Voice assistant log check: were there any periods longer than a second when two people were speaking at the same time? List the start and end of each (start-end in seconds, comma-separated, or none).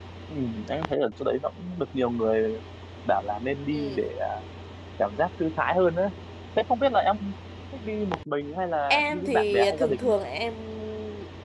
8.9-10.1